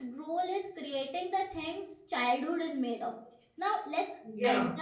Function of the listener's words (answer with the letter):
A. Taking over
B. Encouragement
B